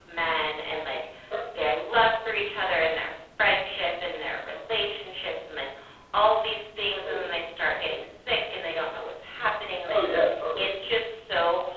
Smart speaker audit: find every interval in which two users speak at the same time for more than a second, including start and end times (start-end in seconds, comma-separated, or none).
none